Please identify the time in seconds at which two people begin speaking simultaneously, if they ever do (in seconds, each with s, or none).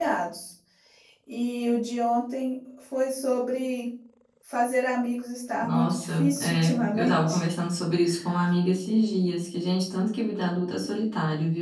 5.6 s